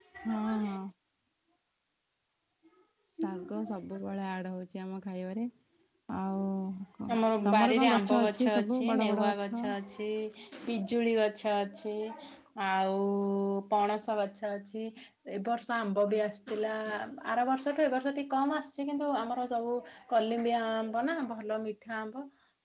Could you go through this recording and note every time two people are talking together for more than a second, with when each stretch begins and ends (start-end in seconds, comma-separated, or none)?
7.5-9.7